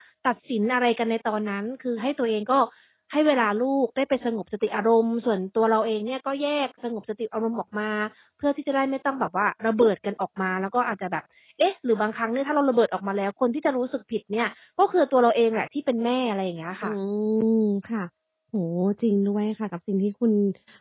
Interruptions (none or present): none